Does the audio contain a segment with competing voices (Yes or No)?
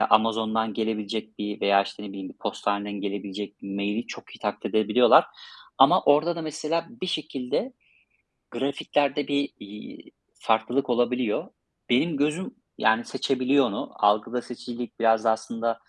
No